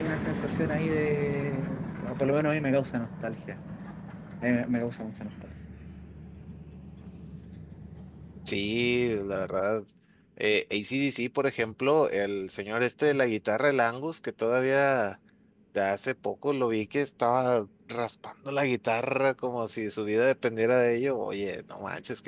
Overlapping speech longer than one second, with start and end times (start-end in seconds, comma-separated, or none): none